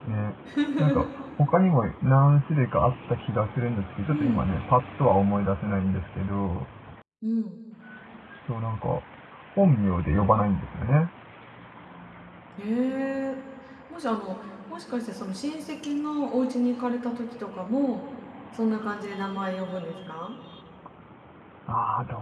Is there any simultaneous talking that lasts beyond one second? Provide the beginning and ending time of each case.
none

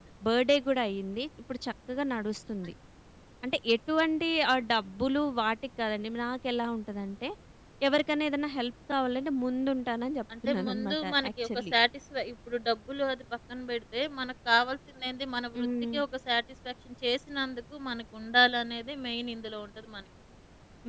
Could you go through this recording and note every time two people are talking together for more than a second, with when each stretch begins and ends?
10.5-11.7

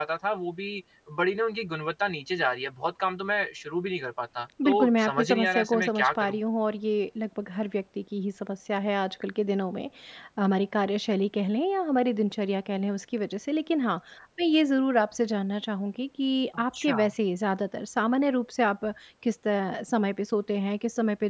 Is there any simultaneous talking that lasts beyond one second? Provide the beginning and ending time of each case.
4.6-6.4

